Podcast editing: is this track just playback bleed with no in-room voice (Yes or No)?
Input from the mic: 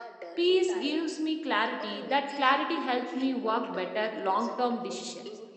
No